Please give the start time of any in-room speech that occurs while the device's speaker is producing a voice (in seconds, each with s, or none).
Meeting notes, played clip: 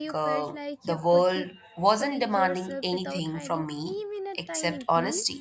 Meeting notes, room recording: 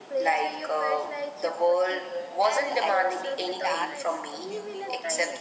2.4 s